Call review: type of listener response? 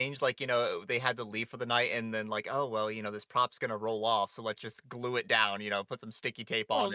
taking over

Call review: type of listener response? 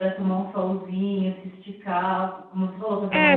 taking over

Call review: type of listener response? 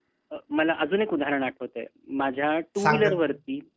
listening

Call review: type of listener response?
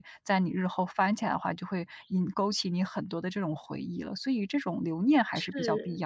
taking over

